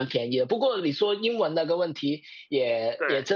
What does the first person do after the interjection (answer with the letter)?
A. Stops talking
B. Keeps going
B